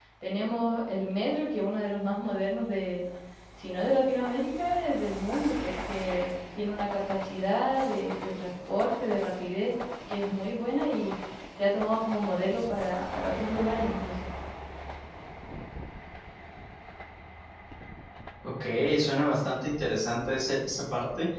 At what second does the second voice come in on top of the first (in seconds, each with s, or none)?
none